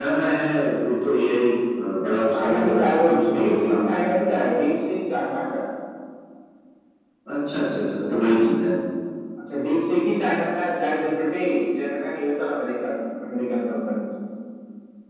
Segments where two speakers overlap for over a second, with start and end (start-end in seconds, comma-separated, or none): 2.3-3.9